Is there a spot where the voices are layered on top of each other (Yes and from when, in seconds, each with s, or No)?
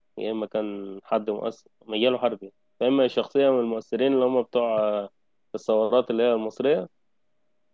No